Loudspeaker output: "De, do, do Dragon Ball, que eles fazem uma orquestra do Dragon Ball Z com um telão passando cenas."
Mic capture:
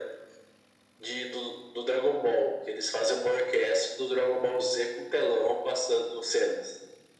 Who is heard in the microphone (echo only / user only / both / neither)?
echo only